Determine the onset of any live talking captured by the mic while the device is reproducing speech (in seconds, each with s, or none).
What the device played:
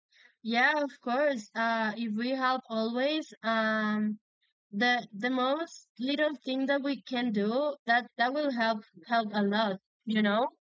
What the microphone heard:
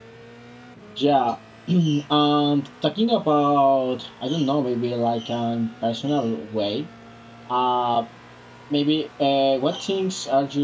0.9 s